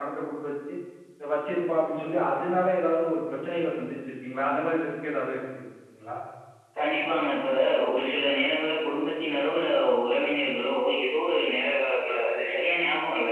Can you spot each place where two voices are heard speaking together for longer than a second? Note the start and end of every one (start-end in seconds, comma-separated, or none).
none